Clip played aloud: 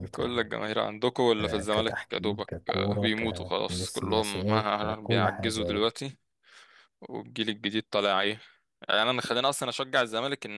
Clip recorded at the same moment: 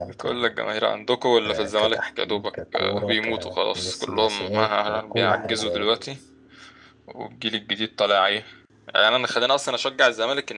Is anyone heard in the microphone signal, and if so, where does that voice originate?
both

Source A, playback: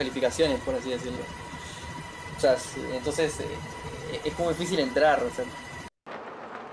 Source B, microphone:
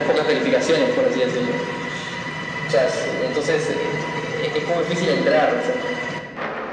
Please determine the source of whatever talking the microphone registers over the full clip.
echo only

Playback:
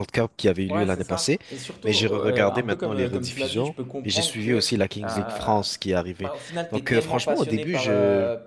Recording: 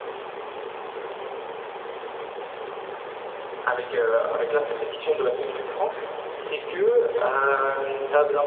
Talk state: user only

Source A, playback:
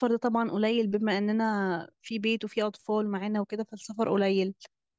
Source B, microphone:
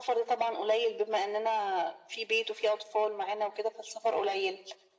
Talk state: echo only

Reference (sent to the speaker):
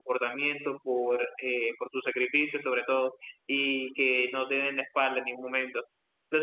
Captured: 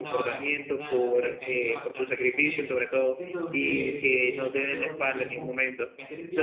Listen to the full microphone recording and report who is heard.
both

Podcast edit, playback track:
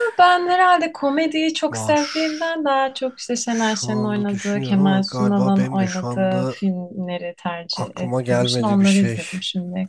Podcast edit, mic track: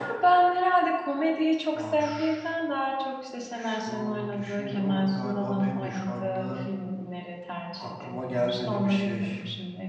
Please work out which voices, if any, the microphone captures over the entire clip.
echo only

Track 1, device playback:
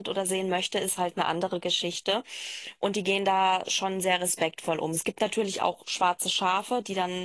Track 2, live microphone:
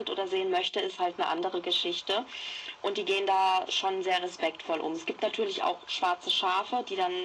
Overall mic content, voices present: echo only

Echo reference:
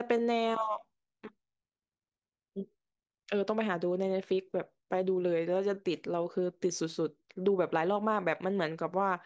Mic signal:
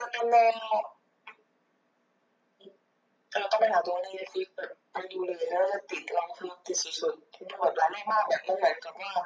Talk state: echo only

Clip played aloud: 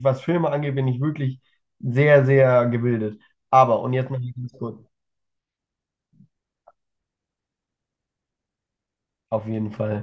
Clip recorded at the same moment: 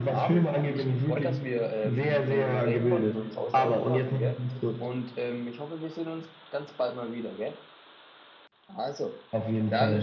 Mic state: both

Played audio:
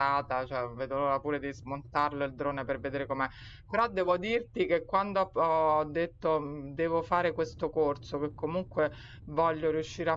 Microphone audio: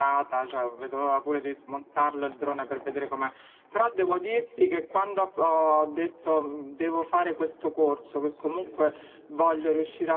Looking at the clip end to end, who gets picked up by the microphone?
both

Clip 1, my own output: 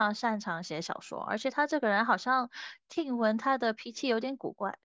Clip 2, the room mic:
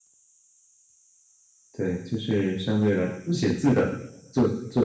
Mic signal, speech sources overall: user only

